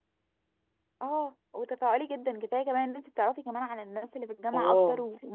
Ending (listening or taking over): taking over